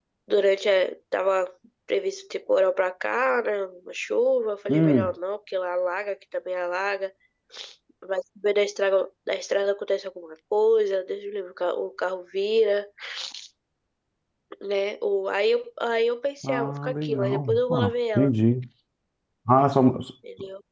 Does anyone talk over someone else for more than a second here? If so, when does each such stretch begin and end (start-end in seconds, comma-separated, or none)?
16.4-18.3